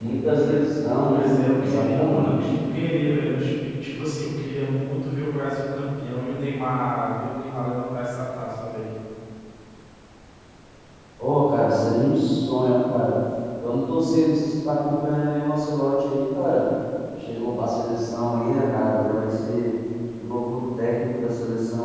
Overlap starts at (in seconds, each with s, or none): 1.0 s